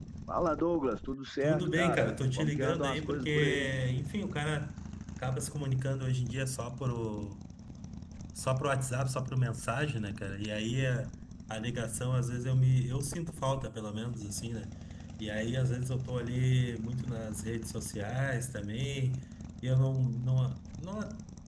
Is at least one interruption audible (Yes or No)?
Yes